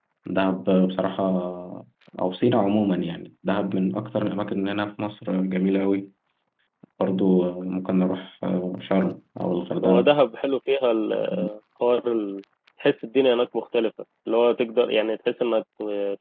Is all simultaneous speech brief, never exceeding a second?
Yes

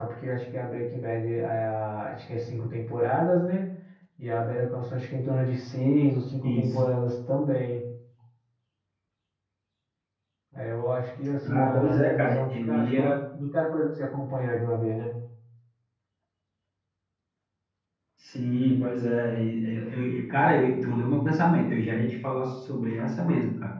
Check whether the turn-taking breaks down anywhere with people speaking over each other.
Yes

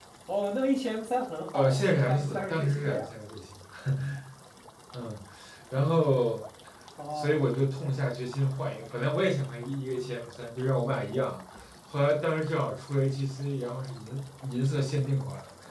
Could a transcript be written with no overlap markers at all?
No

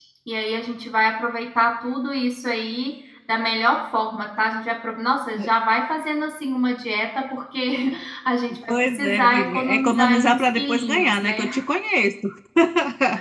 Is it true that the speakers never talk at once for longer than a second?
No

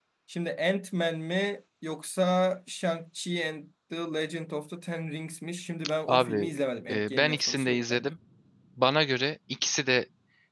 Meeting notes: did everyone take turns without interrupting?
No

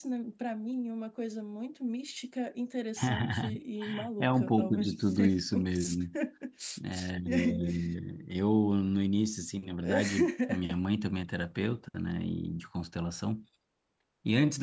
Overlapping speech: Yes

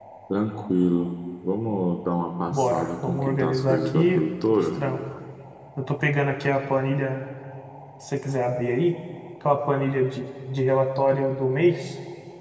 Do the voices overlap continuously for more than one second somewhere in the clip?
Yes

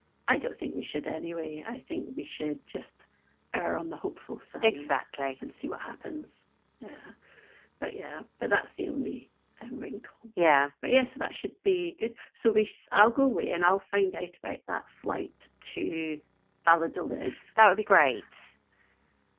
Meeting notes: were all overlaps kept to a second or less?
Yes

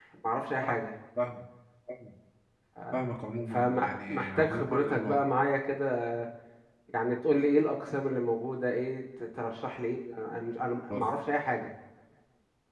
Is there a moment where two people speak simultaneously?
Yes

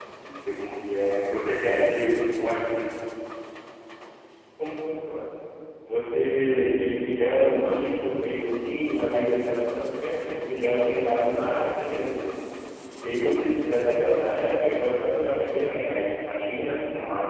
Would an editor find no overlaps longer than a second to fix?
Yes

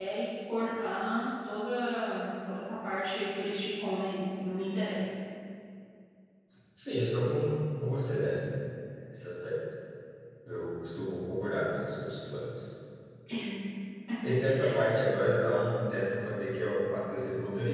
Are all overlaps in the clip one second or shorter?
Yes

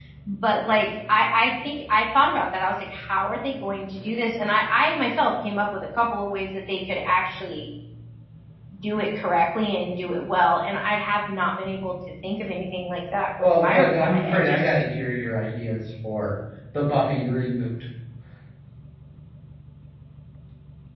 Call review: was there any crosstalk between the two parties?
Yes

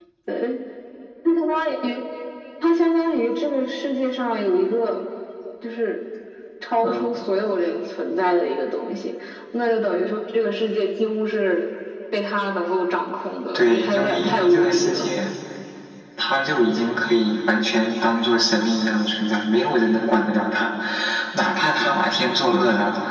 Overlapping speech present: Yes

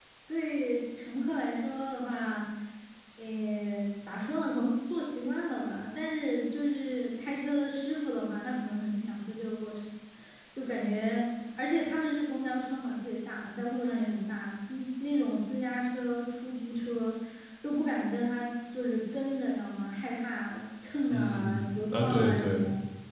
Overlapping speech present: Yes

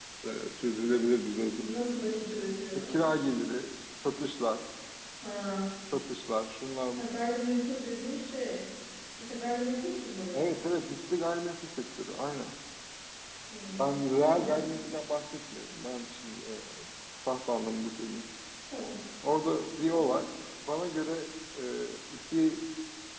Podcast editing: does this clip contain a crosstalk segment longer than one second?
No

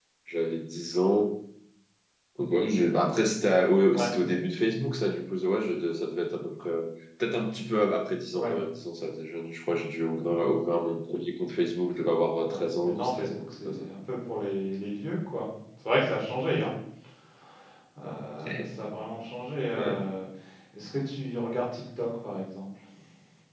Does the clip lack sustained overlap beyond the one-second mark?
No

